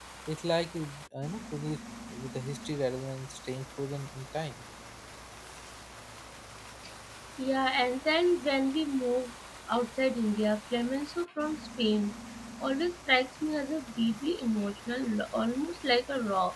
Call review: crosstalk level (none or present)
none